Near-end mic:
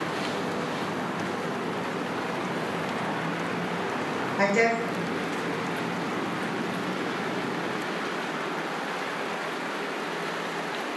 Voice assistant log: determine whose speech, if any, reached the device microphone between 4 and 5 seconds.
user only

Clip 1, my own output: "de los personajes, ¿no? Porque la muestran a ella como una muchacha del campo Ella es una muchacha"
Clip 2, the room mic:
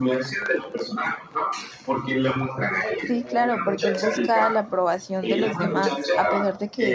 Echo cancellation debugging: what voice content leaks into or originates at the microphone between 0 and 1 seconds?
echo only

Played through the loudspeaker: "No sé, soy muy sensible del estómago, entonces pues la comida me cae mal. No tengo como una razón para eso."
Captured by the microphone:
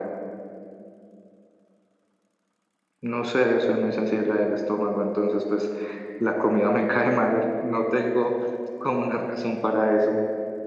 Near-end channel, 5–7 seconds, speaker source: echo only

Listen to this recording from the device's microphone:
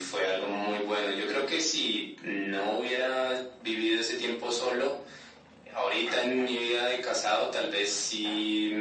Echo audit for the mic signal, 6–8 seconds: echo only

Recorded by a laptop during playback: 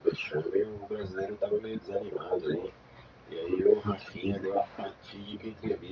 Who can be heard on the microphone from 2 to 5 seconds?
echo only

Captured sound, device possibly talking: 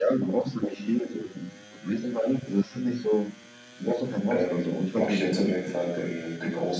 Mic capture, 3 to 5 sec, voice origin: both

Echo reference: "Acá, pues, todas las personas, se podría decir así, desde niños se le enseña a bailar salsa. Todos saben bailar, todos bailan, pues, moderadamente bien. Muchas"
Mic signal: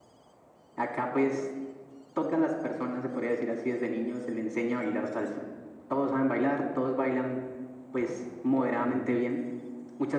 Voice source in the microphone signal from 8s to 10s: both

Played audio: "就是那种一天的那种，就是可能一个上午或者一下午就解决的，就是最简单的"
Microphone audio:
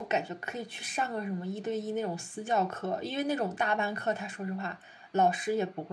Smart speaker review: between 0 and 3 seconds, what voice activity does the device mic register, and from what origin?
user only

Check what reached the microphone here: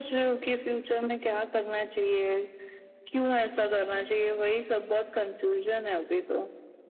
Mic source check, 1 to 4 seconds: echo only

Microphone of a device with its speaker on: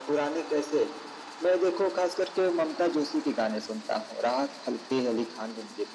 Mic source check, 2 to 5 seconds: echo only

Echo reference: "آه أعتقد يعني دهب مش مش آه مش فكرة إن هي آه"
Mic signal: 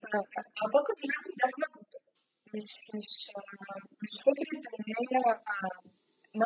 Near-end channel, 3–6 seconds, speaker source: echo only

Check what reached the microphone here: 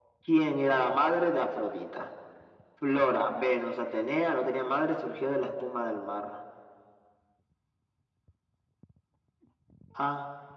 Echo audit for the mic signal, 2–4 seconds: echo only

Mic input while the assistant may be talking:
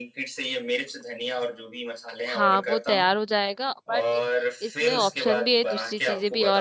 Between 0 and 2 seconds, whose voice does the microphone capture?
echo only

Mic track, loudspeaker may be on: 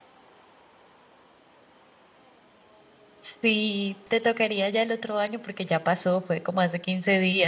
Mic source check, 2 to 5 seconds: user only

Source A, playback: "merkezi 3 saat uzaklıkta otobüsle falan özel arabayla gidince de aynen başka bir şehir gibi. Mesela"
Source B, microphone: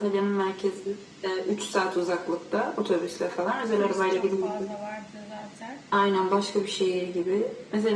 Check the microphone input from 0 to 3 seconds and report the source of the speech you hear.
echo only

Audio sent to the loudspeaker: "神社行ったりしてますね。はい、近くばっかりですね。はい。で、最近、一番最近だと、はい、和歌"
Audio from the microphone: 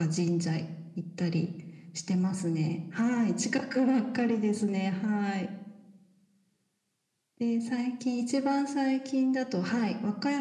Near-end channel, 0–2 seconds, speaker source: echo only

